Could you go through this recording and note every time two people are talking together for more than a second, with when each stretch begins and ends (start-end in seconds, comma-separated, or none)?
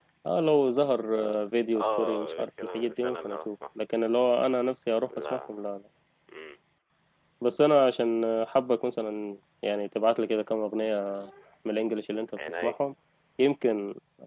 1.7-3.5